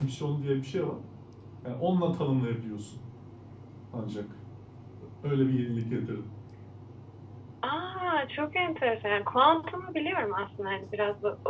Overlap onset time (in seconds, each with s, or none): none